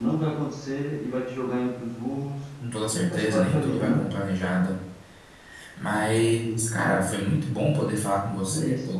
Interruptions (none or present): present